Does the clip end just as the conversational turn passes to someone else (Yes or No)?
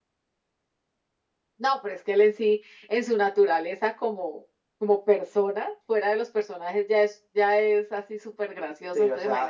Yes